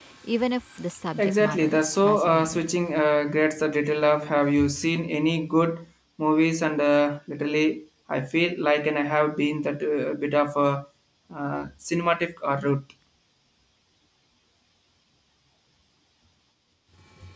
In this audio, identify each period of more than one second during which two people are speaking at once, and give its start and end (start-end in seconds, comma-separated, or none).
1.2-2.7